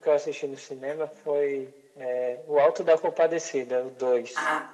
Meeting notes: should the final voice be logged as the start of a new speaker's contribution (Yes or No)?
Yes